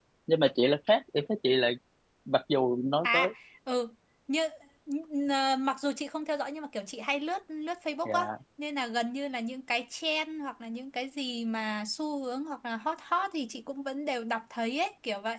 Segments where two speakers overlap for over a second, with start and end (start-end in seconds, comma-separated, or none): none